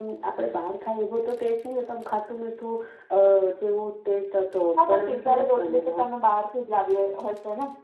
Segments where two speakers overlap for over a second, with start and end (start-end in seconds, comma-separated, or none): 4.8-6.1